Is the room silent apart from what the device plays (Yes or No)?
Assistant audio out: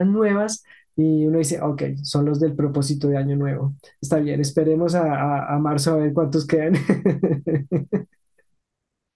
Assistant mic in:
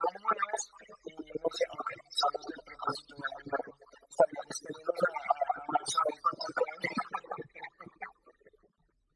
Yes